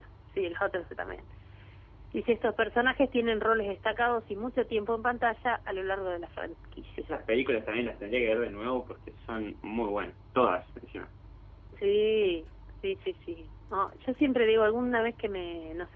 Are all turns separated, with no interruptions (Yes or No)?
Yes